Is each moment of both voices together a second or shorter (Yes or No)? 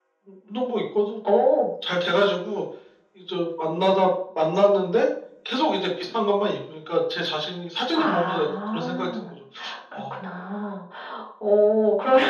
No